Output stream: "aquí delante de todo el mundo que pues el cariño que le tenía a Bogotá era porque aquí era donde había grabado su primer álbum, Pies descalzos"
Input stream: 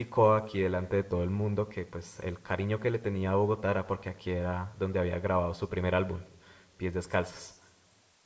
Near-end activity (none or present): none